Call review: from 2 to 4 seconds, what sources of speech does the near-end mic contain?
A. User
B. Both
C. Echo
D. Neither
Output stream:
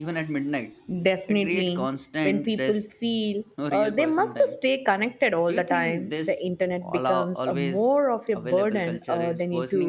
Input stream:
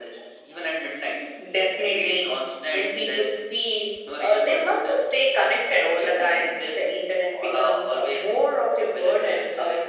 C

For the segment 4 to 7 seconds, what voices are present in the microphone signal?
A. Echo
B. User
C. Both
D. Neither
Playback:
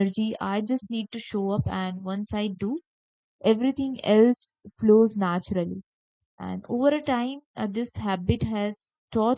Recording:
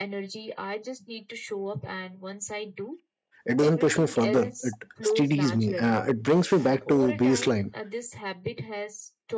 C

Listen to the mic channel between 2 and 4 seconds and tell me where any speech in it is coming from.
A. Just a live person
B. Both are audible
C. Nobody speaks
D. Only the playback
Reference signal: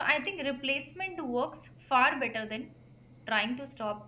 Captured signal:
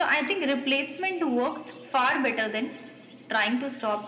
D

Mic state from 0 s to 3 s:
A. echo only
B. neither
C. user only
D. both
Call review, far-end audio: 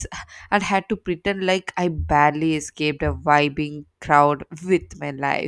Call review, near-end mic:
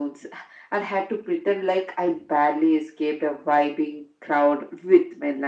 A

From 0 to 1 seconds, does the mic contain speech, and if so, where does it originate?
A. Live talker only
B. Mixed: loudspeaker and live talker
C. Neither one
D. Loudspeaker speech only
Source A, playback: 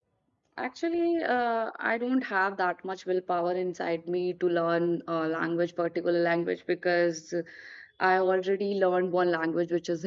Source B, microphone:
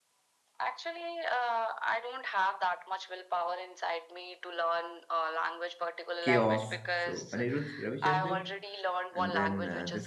D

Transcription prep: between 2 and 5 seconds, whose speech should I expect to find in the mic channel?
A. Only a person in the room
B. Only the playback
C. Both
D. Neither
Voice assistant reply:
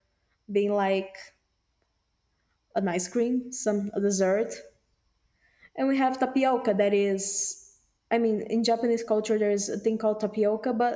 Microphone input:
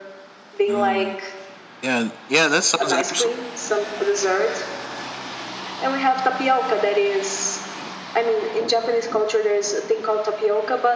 C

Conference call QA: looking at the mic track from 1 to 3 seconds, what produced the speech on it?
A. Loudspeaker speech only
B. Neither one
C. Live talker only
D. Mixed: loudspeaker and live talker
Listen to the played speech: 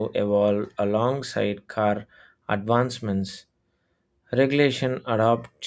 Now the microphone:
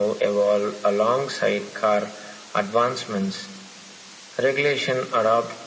A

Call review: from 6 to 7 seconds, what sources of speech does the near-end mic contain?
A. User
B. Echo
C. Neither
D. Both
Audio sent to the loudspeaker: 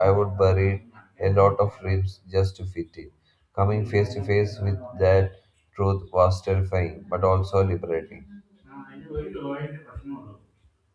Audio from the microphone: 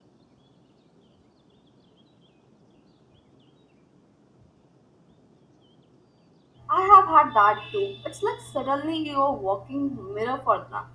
A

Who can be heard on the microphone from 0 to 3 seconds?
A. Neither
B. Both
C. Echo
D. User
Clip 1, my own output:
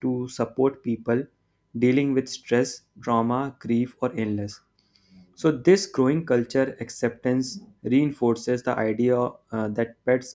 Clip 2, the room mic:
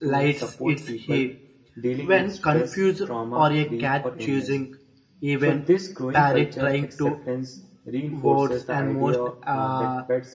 B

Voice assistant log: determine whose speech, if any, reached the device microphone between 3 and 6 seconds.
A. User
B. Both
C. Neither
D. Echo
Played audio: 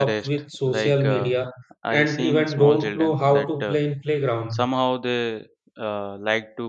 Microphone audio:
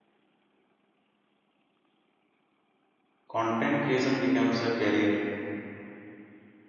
A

